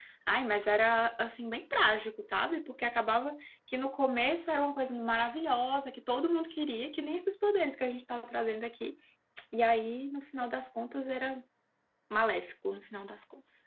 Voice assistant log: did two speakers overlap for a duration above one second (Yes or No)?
No